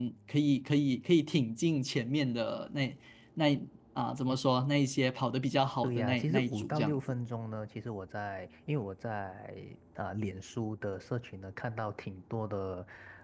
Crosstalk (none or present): present